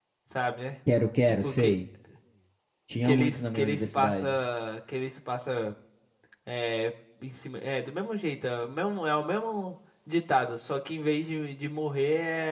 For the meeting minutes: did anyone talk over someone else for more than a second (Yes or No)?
Yes